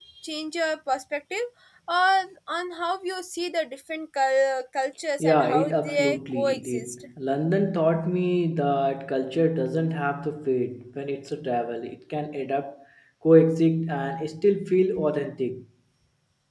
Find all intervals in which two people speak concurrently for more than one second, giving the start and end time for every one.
5.2-7.0

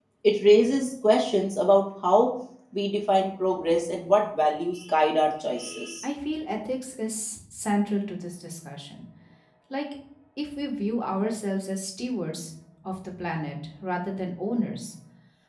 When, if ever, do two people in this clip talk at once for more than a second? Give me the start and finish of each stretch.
none

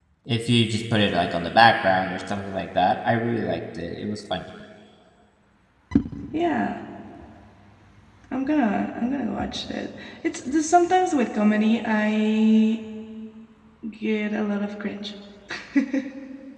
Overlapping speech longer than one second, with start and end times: none

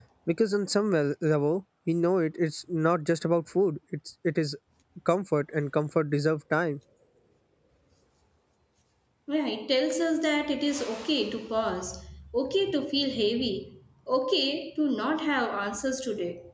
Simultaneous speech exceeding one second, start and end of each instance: none

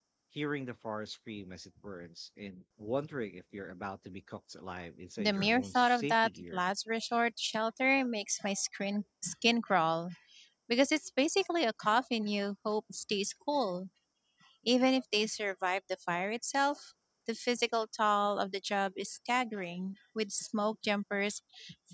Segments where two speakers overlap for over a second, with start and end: 5.2-6.6

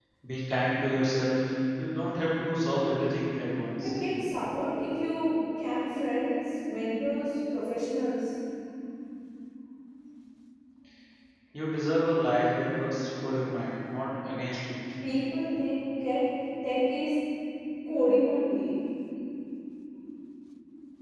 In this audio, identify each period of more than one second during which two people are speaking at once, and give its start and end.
none

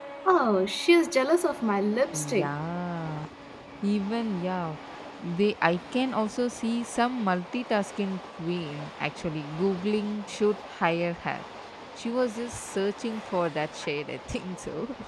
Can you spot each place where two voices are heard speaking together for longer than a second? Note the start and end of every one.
none

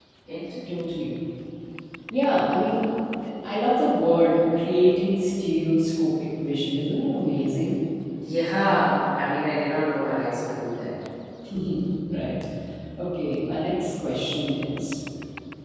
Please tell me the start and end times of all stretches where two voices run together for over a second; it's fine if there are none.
none

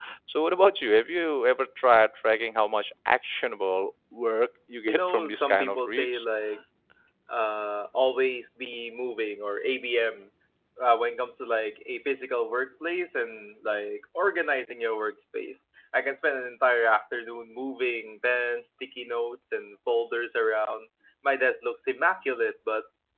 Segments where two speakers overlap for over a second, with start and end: 4.8-6.2

